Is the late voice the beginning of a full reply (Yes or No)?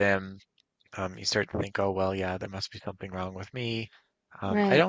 No